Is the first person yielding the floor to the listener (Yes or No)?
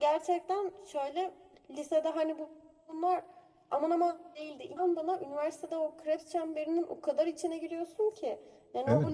Yes